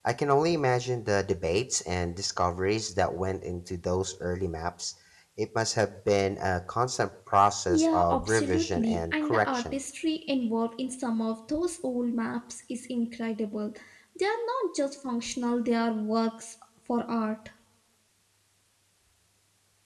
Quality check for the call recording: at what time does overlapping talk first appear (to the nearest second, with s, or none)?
8 s